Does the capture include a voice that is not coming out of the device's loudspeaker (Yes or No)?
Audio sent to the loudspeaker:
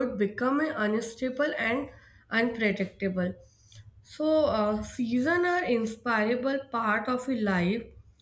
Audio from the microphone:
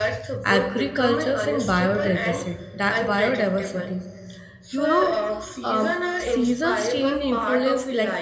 Yes